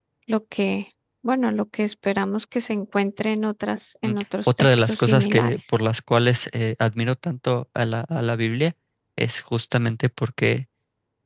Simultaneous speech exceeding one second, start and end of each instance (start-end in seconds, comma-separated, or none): 4.0-5.5